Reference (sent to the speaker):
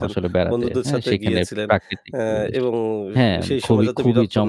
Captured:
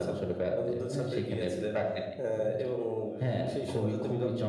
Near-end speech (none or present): none